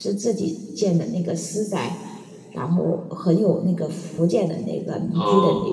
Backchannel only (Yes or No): Yes